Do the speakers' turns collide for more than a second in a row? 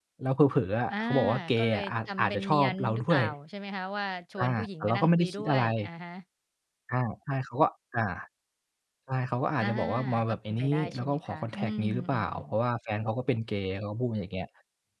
Yes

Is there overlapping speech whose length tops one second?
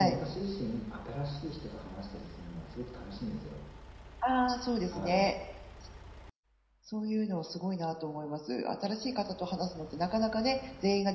No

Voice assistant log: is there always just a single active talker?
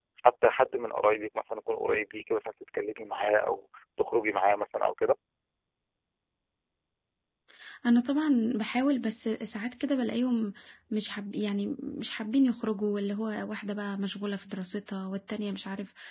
Yes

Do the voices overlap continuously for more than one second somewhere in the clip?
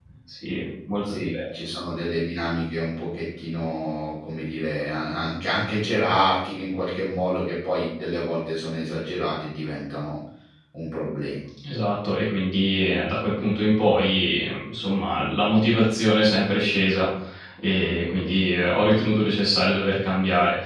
No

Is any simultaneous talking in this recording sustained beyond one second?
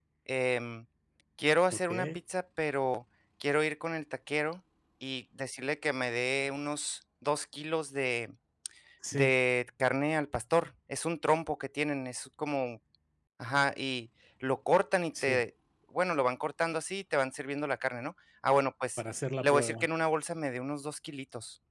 No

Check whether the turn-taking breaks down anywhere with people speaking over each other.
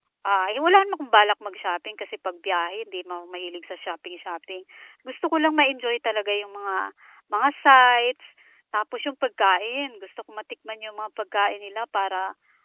No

